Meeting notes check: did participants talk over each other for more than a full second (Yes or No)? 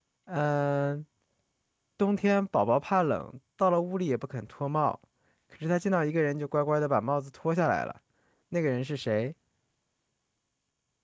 No